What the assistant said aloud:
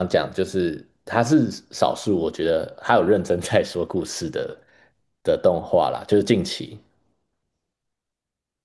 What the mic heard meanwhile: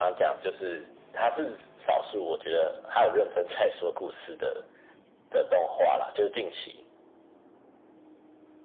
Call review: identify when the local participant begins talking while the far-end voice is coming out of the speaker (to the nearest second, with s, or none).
none